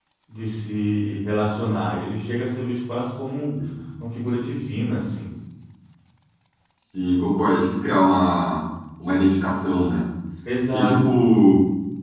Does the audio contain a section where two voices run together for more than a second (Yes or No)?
No